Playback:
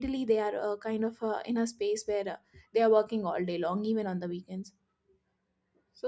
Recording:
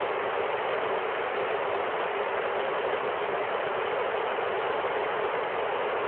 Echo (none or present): none